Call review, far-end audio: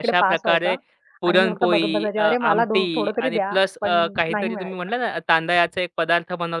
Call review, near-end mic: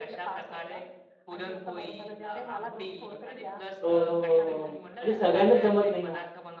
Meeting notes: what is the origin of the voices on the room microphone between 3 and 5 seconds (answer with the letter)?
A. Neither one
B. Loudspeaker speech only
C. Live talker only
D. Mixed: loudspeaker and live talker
D